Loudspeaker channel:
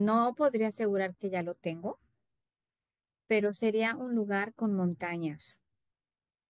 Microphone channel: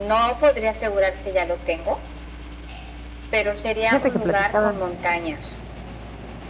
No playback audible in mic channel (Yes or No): No